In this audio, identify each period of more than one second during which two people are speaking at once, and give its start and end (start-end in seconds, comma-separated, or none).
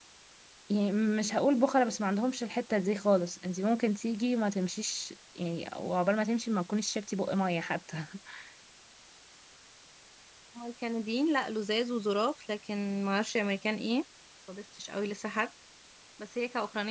none